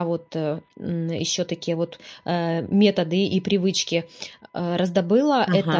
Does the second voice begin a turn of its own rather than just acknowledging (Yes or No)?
No